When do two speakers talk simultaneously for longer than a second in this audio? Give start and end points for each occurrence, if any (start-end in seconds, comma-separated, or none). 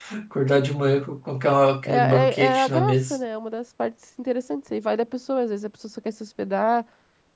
1.8-3.2